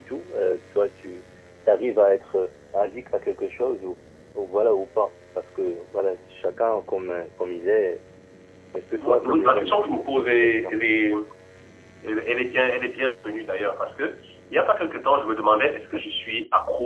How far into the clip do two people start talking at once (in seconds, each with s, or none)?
8.9 s